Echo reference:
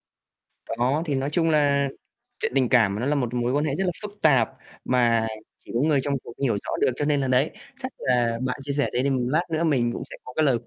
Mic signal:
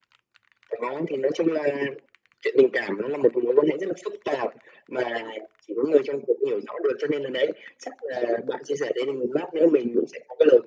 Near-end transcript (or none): none